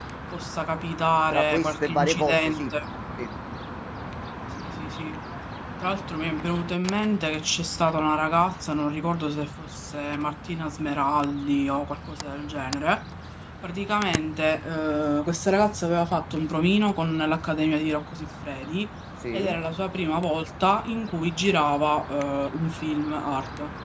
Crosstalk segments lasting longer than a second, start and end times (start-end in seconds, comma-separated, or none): 1.3-2.7